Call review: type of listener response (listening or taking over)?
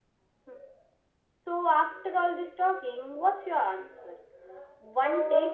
listening